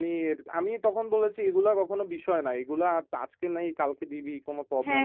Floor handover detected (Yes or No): No